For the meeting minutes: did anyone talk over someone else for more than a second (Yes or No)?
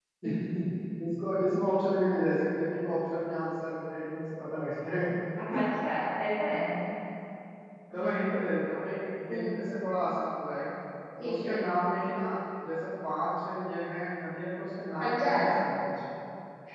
No